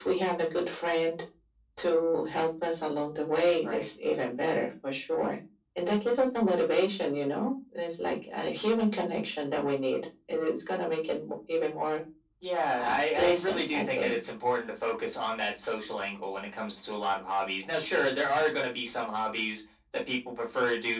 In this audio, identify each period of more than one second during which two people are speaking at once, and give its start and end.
12.8-14.2

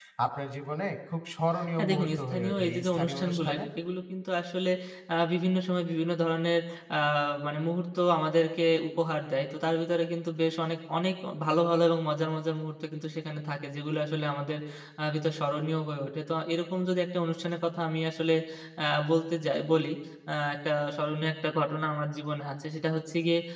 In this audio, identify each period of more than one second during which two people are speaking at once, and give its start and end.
1.8-3.6

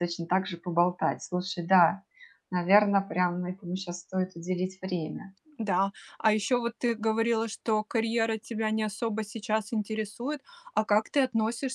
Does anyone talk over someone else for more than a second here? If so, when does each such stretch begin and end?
none

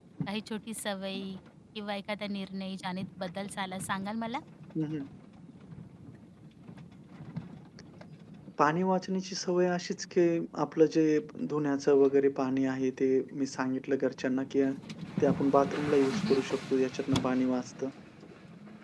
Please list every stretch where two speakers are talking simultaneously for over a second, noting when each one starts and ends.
none

